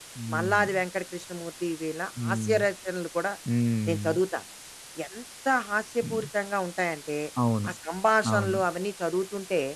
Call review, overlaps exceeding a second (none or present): none